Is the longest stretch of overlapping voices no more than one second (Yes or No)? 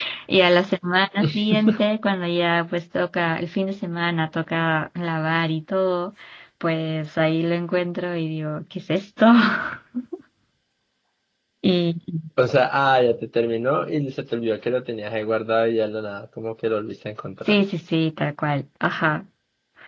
Yes